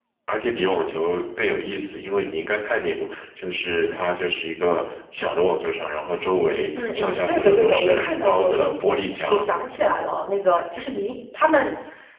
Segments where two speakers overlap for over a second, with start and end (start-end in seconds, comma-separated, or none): 6.8-9.5